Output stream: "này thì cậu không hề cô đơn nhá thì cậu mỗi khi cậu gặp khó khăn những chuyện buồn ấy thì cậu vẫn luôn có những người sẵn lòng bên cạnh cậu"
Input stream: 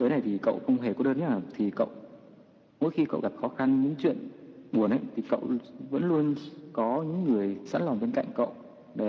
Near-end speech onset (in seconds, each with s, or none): none